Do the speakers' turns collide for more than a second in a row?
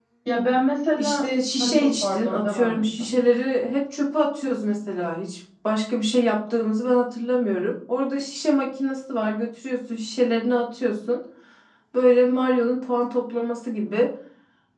Yes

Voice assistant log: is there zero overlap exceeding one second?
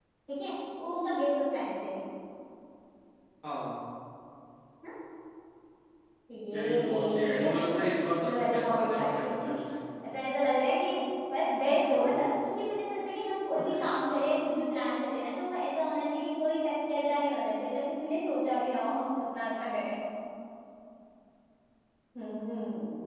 No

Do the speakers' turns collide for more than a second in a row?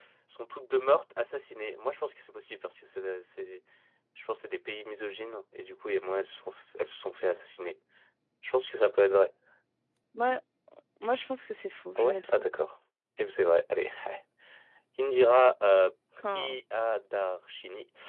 No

